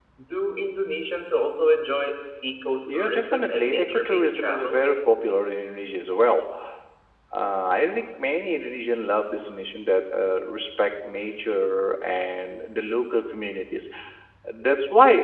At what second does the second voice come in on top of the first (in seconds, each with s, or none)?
2.9 s